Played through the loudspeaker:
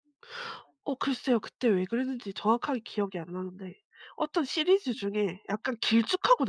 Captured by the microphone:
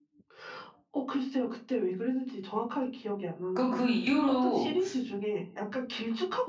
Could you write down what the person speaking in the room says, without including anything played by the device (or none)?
그 그 이후로